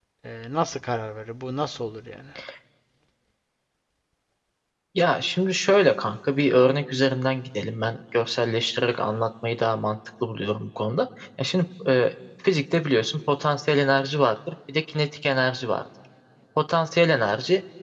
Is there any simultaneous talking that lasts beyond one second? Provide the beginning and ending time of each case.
none

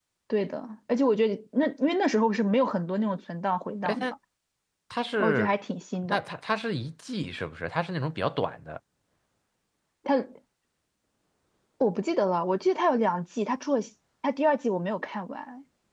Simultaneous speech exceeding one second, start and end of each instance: none

